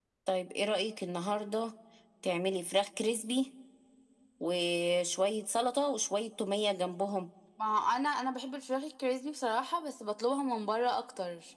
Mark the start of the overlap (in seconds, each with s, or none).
none